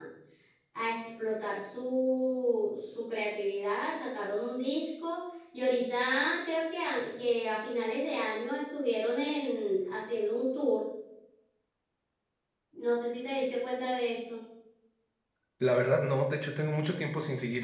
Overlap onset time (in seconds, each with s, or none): none